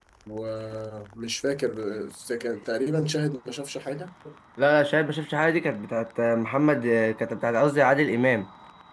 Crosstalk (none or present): none